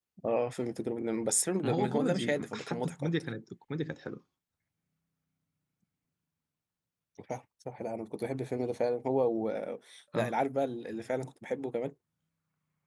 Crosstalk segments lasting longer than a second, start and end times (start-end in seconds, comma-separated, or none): 1.6-3.1